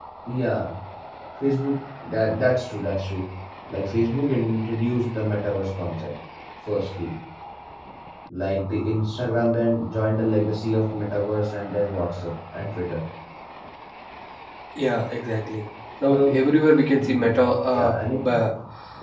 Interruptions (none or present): present